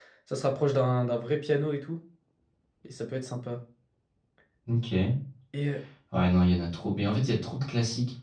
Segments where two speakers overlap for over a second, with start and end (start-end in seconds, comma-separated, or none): none